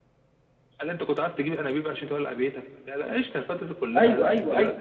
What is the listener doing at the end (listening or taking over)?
taking over